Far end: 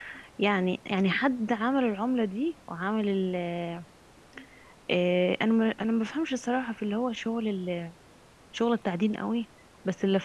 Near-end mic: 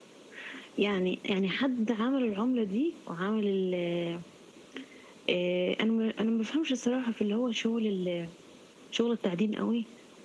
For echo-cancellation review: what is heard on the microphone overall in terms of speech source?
echo only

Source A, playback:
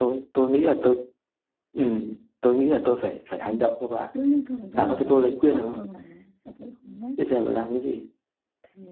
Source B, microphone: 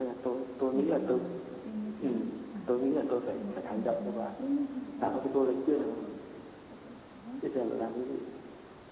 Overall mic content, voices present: both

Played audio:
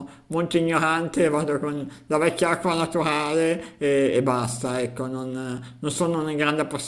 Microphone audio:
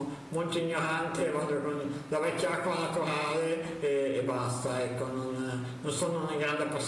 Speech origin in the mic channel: echo only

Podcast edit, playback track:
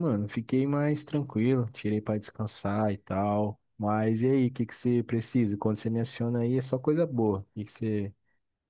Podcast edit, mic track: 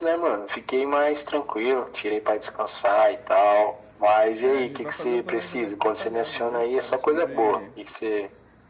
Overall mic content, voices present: both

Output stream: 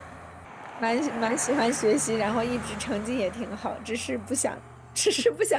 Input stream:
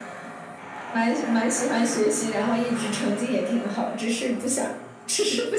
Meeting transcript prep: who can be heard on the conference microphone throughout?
echo only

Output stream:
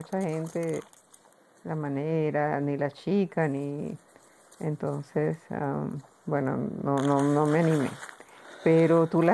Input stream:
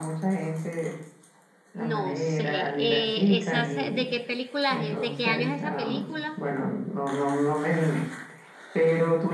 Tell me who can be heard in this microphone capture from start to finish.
both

